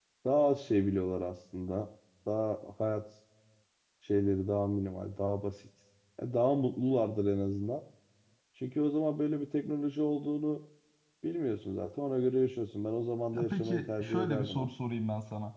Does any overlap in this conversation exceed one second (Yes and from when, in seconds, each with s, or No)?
Yes, from 13.3 s